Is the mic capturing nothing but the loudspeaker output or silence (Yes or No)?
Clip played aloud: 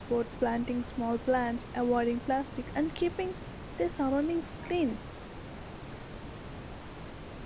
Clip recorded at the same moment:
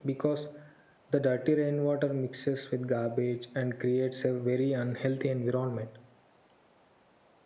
No